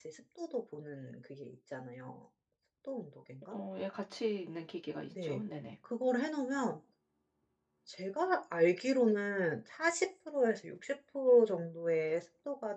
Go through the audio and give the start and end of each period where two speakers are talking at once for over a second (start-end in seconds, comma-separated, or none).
none